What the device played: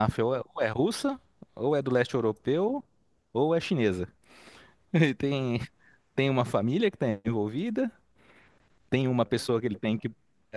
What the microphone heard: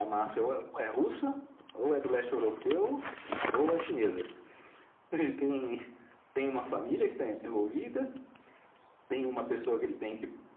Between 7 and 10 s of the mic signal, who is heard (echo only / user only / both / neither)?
echo only